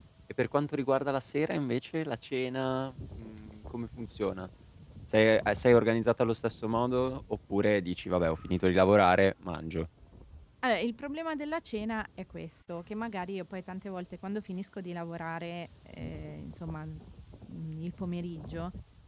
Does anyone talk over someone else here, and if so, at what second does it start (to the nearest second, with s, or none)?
none